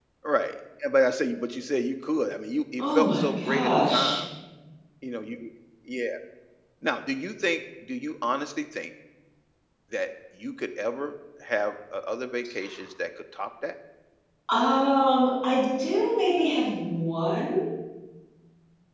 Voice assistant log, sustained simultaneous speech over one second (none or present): present